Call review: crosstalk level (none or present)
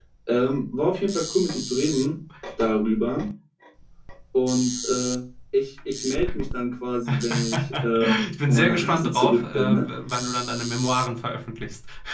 present